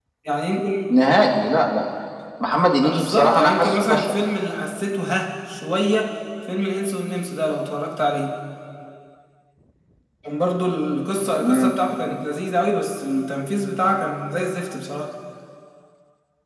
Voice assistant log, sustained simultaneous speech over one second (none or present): present